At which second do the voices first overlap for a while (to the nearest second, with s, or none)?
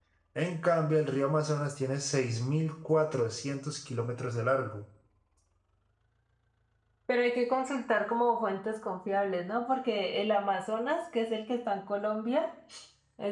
none